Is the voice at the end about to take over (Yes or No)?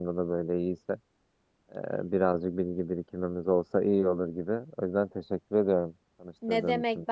Yes